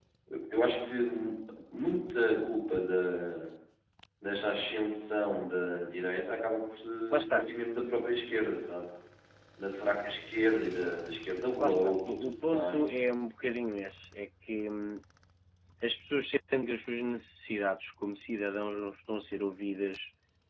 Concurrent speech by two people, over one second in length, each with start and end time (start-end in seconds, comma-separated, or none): 11.6-12.9